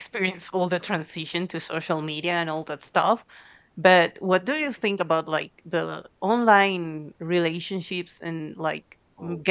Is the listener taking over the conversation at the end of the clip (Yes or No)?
No